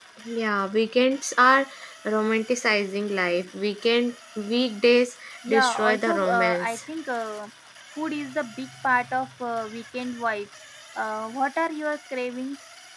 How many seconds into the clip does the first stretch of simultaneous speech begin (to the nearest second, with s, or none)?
5 s